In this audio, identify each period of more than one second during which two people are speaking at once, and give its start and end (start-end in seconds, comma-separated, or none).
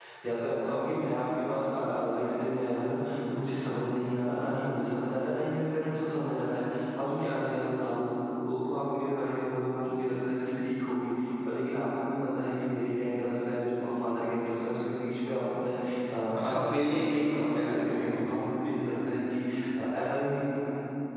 16.4-18.8